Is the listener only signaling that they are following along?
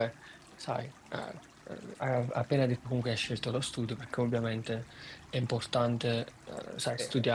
Yes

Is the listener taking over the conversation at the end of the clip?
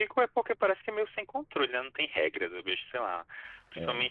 No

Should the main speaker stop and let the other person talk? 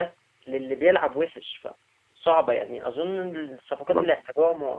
No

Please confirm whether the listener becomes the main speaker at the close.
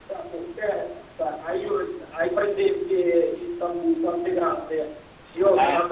No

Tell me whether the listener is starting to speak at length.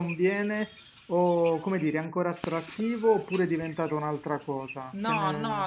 Yes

